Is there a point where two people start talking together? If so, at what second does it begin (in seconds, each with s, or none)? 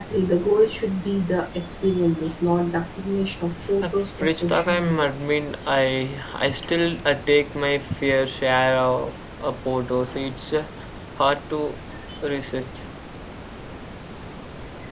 3.6 s